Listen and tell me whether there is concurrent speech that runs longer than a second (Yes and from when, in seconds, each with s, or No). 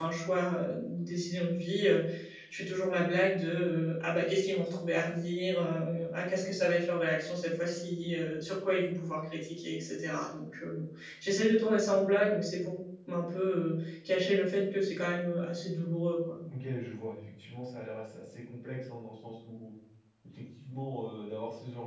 No